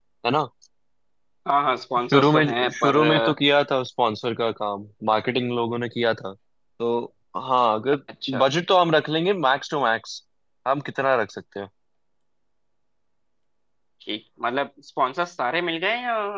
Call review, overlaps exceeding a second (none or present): present